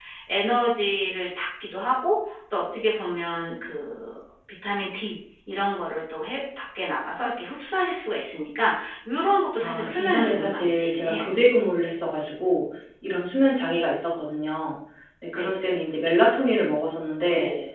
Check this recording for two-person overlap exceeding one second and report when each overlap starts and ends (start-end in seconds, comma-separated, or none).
9.6-11.2